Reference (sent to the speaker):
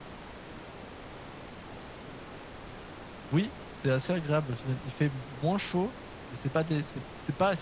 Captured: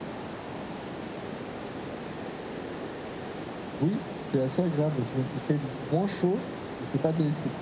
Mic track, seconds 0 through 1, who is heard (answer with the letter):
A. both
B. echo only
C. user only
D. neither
D